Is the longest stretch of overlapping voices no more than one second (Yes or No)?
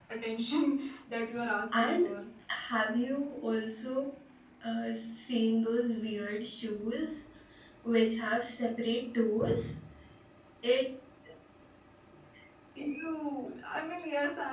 Yes